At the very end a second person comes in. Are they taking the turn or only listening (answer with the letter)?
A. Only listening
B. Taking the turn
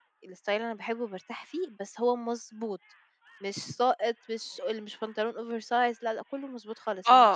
B